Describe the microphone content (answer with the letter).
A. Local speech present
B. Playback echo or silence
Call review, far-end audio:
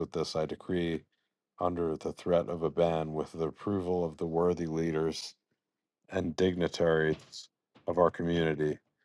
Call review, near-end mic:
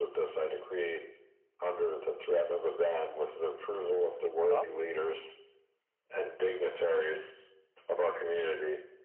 A